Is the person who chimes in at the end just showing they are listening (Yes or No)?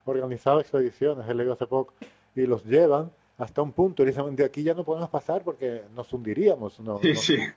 Yes